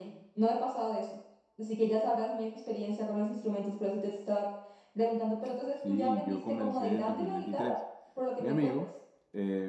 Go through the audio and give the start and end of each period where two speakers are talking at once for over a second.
5.9-7.7

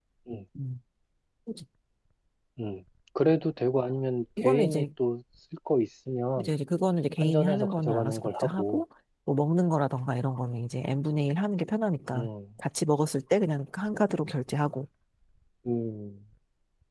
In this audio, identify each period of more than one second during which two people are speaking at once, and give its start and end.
7.2-8.8

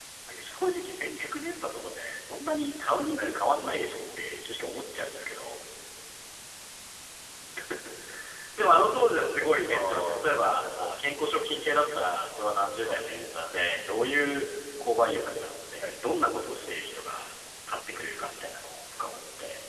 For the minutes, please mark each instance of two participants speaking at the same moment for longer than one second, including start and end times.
9.7-11.0

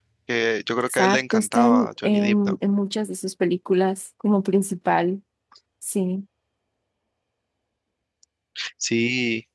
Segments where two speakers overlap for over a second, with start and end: 0.9-2.6

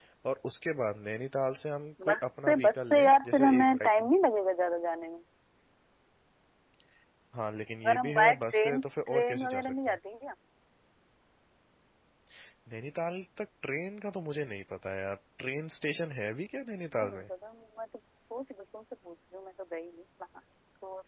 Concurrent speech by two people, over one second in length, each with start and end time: 2.0-4.1, 7.8-10.0

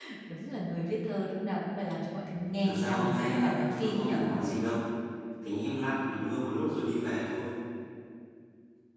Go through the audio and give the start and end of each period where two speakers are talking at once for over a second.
2.6-4.2

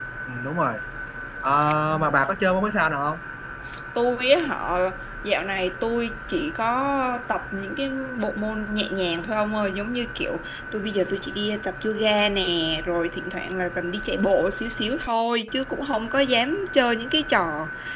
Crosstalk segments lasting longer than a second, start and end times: none

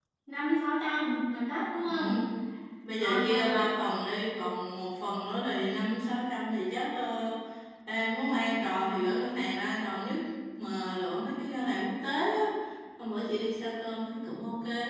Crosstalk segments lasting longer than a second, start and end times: none

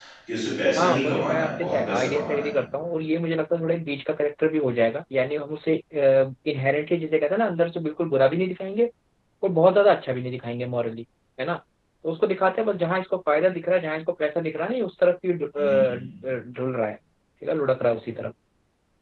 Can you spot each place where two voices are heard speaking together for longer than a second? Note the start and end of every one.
0.8-2.5

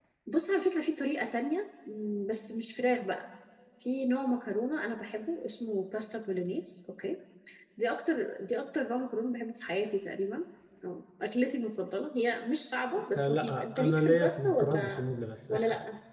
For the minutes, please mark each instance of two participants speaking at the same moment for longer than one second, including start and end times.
13.2-15.0

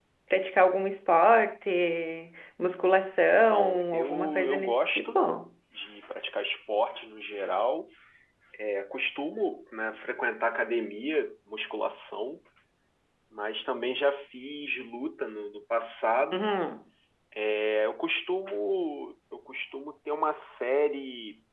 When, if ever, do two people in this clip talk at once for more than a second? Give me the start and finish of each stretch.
3.5-5.2

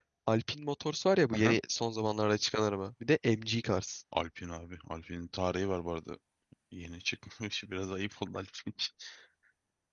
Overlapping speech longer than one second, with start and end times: none

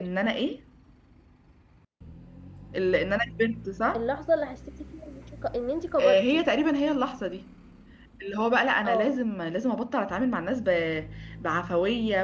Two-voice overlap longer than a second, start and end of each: none

